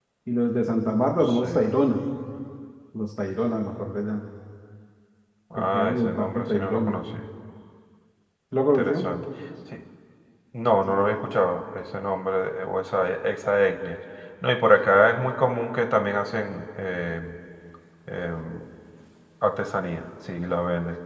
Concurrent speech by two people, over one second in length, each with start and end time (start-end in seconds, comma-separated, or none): 5.6-7.0